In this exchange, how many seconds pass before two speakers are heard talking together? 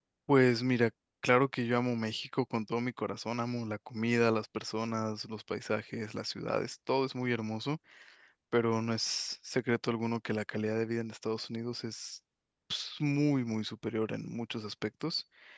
none

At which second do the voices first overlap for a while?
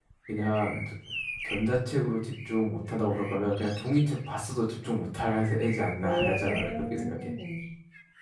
6.0 s

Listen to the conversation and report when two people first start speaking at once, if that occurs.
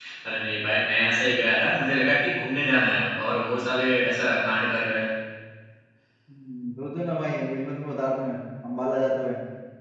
none

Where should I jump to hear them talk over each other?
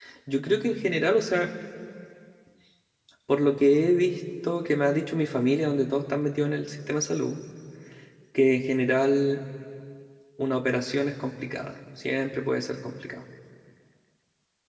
none

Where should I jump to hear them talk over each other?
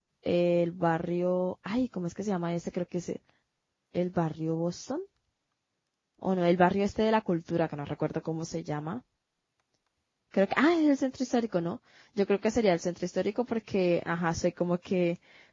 none

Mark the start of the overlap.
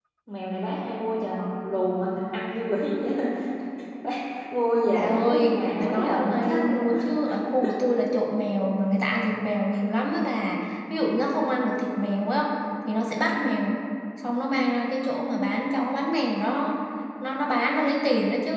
4.9 s

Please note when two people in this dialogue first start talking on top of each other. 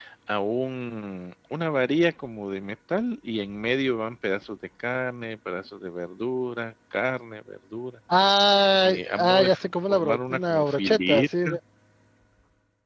8.8 s

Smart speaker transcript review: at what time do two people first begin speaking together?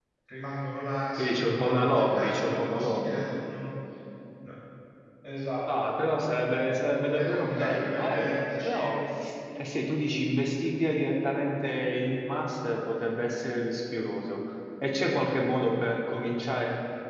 1.2 s

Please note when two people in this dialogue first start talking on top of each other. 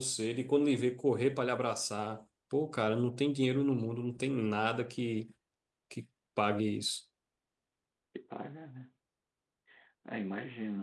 none

